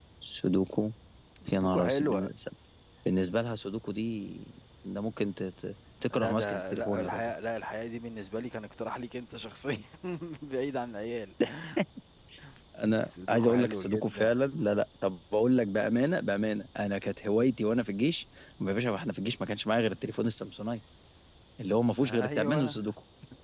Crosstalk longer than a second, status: present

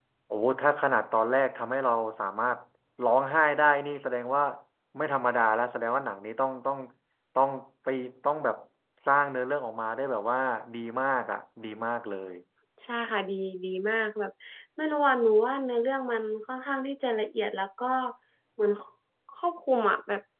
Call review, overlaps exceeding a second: none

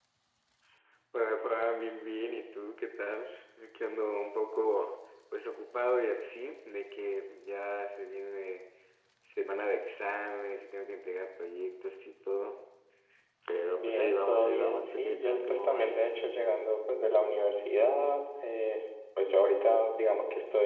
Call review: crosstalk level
present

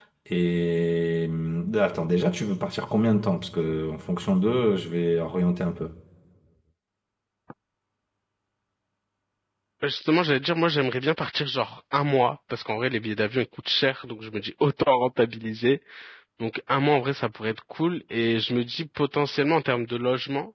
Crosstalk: none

